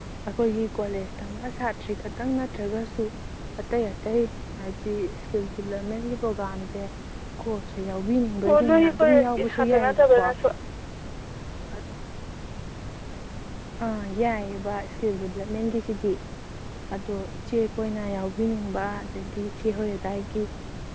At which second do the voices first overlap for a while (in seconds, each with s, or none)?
8.5 s